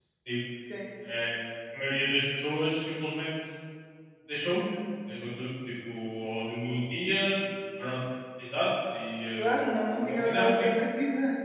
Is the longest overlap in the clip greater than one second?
Yes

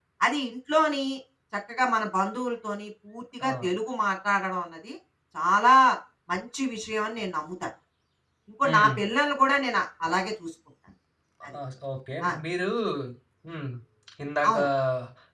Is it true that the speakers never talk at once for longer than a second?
Yes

